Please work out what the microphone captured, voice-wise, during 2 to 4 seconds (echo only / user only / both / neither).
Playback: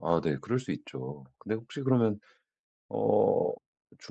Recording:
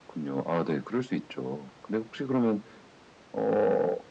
echo only